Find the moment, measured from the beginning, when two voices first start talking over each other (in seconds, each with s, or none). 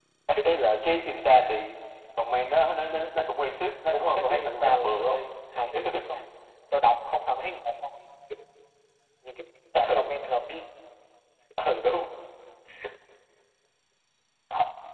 3.9 s